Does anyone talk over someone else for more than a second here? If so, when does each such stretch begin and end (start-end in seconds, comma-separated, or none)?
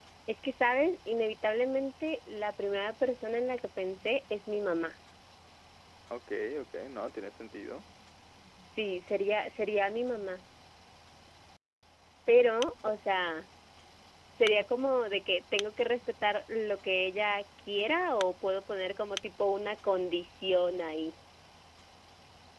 none